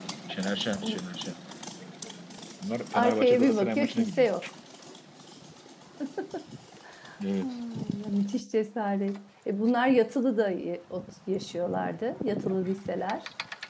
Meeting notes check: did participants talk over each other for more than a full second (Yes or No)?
Yes